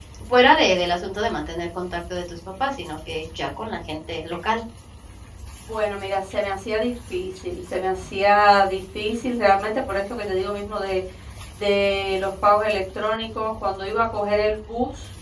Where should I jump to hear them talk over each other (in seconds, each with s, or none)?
none